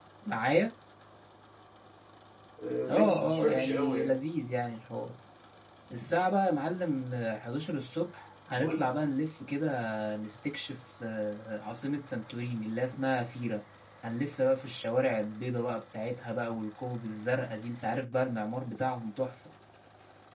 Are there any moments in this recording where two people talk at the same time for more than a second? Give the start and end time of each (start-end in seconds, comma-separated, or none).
2.9-4.2